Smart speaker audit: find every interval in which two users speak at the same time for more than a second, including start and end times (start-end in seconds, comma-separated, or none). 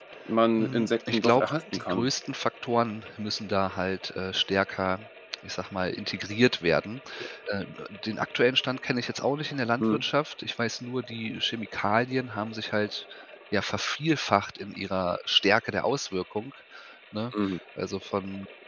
0.6-2.1